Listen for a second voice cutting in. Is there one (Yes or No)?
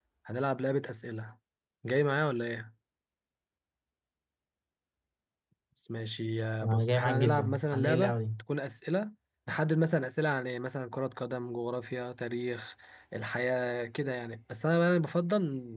Yes